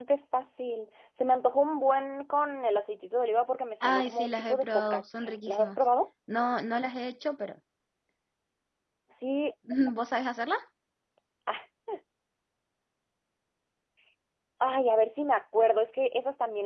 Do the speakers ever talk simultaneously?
Yes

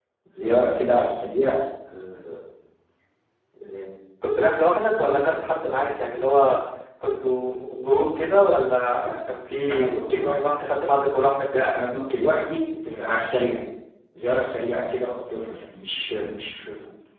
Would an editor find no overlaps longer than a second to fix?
Yes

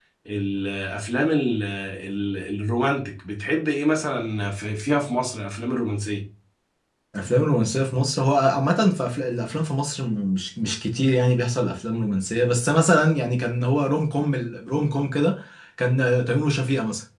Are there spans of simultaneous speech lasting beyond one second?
No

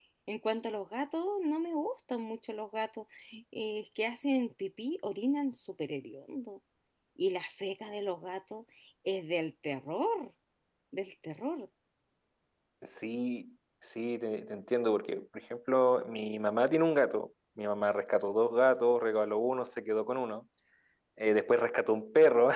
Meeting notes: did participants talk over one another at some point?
No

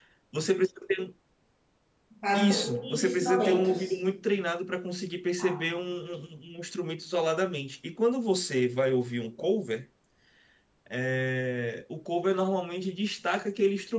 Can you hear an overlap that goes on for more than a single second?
Yes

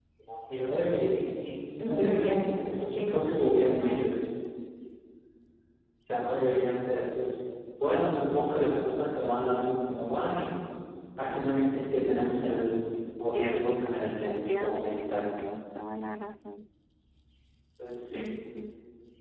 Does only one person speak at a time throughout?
No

